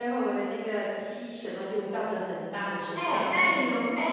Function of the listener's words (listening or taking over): taking over